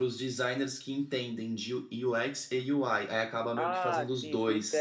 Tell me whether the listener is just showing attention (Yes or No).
No